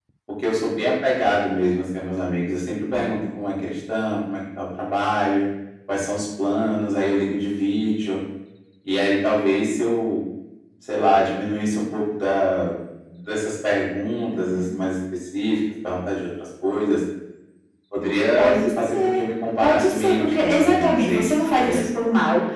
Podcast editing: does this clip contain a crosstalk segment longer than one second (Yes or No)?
Yes